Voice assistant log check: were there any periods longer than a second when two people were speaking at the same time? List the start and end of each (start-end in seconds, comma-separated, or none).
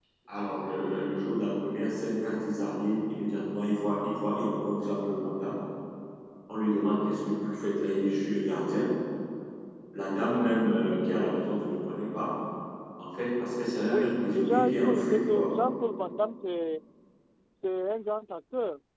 13.9-15.5